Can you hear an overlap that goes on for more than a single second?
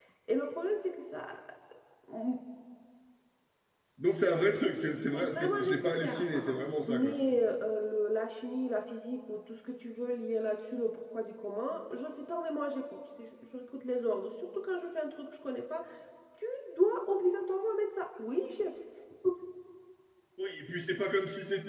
Yes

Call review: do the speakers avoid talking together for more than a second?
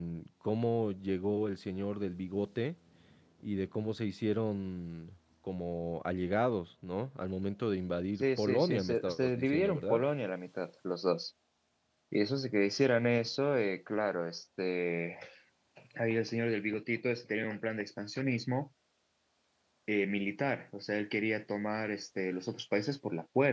No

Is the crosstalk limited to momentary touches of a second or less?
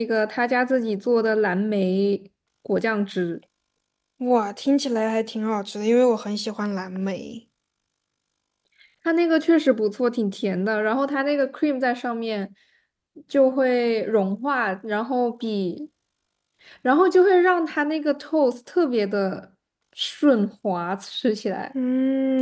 Yes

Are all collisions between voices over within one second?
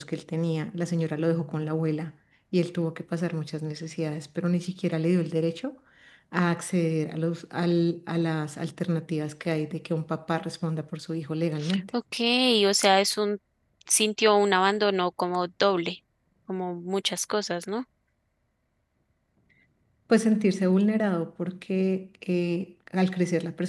Yes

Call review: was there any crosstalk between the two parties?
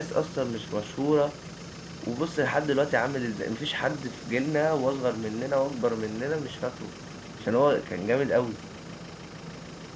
No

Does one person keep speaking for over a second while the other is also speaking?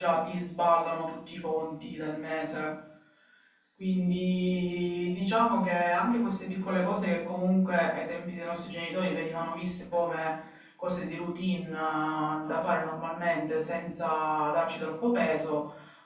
No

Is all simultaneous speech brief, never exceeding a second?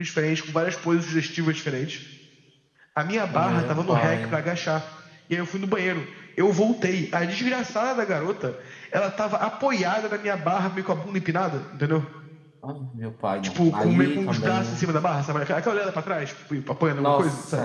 No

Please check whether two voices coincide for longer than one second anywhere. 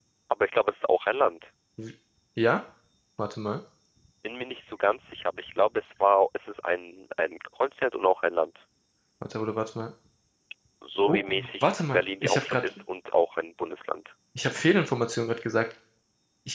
Yes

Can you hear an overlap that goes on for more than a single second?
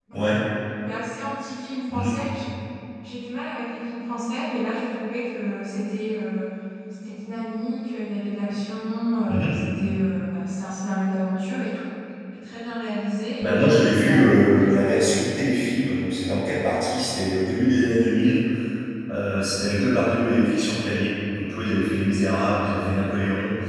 Yes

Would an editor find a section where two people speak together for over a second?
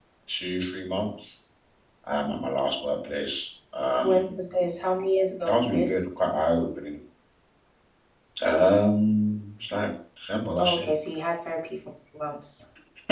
No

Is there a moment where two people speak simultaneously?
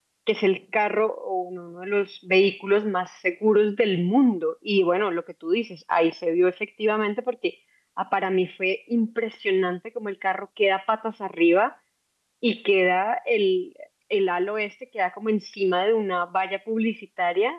No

